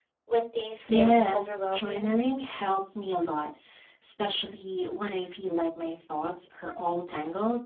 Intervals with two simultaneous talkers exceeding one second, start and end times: 0.9-2.1

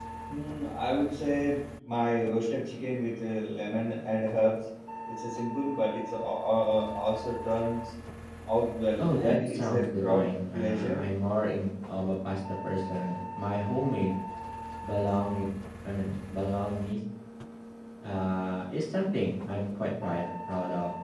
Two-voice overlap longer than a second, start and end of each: 9.0-11.0

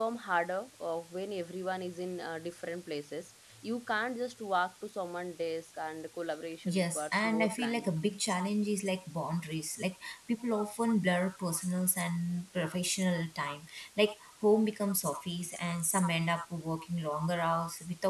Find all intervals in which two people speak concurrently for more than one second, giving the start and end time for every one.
6.7-7.9

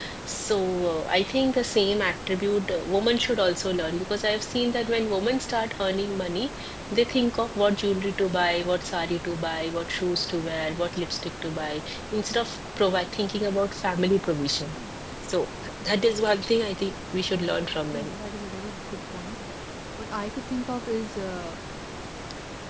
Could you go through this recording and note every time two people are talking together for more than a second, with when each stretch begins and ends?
none

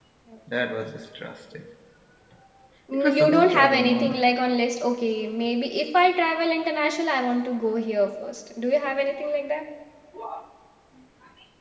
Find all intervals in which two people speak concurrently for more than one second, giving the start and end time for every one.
2.9-4.3

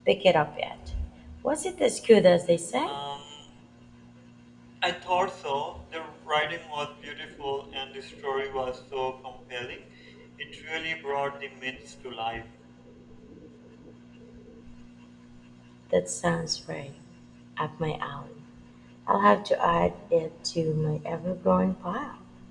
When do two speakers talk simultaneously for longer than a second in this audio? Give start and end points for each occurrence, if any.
none

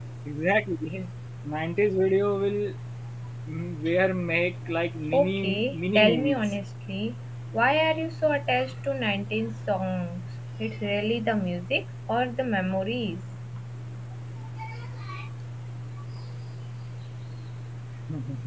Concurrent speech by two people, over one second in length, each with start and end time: 5.1-6.5

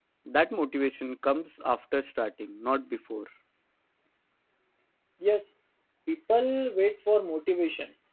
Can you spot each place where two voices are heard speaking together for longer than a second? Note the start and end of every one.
none

